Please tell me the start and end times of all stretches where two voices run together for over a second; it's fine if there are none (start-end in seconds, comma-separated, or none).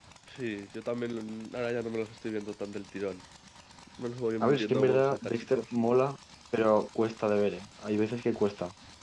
4.4-5.7